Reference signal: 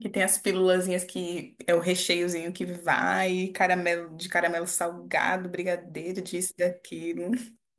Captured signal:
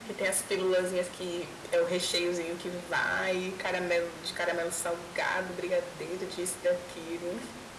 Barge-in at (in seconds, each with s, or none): none